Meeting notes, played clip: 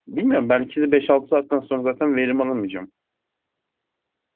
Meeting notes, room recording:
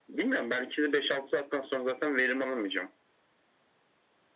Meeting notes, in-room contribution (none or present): none